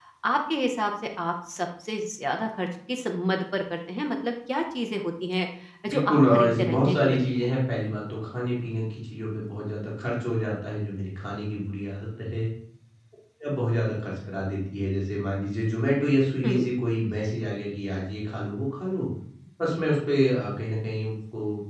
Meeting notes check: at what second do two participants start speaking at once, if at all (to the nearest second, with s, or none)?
6 s